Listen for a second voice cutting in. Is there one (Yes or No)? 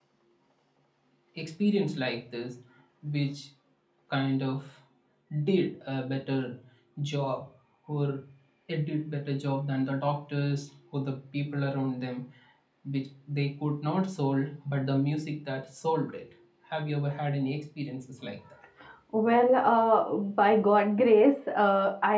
No